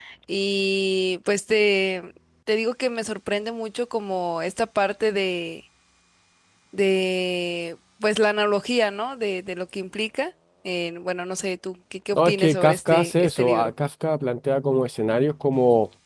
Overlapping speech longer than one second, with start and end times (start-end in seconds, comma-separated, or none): 12.1-13.7